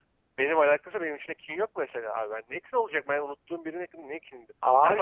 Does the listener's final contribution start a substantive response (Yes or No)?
No